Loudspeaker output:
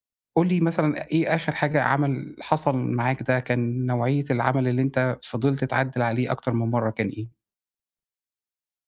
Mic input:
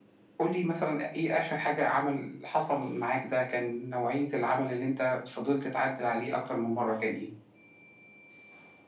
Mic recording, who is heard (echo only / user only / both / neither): echo only